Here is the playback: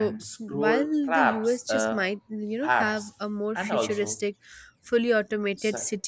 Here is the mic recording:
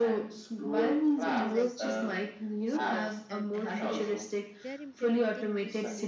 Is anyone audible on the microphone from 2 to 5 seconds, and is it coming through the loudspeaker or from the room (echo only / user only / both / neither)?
both